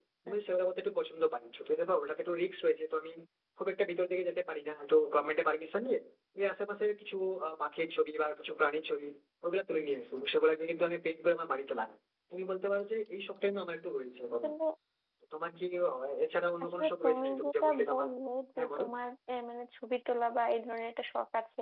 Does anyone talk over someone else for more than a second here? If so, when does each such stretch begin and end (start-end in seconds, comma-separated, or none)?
16.8-18.1